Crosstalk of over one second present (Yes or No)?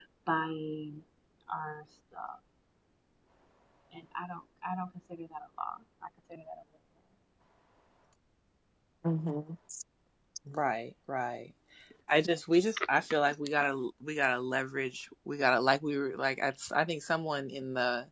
No